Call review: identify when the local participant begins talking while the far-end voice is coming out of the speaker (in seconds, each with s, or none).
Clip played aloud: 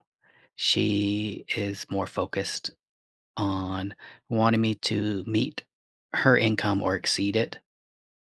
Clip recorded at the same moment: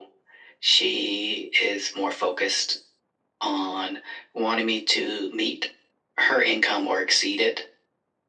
none